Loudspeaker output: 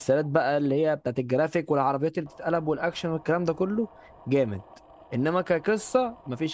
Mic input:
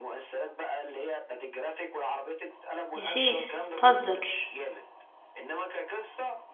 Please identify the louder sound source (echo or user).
user